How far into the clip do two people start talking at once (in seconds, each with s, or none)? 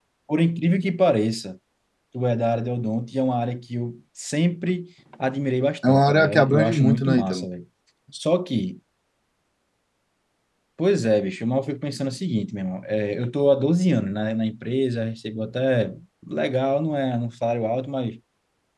5.8 s